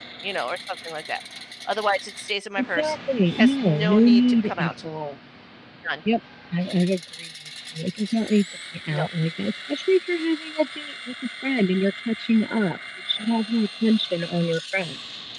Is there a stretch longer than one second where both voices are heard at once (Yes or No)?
Yes